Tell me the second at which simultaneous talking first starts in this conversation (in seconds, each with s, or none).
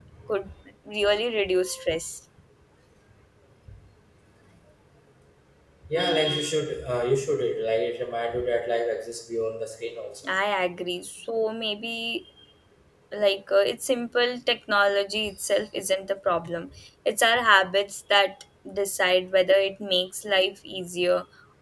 none